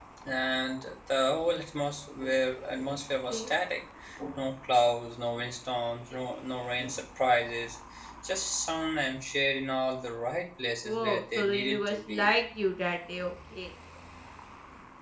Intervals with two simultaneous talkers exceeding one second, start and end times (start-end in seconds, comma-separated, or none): 10.8-12.3